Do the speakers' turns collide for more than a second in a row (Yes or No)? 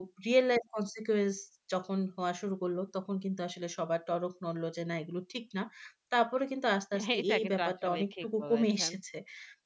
Yes